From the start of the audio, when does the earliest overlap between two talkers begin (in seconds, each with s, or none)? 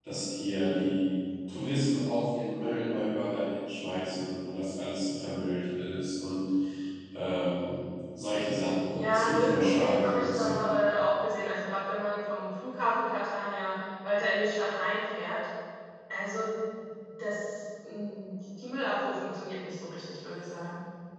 8.9 s